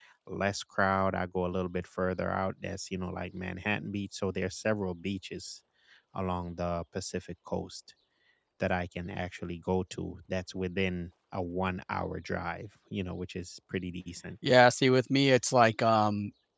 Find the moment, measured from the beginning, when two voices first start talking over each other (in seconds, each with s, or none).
none